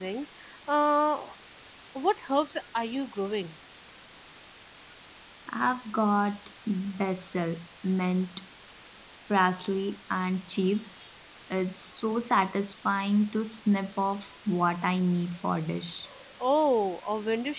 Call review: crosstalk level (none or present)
none